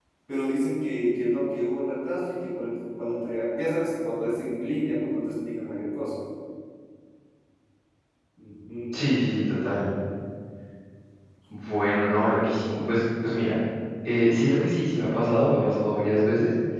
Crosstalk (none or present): none